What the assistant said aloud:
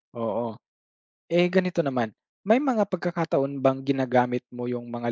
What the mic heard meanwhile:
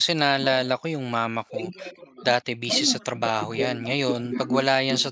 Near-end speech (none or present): present